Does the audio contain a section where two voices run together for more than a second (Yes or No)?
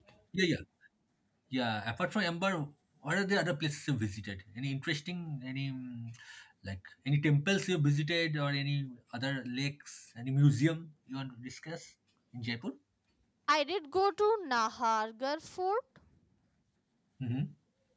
No